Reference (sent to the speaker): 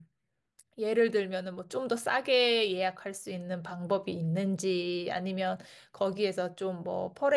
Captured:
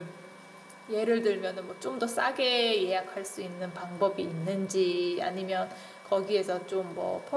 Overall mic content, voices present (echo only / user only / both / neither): echo only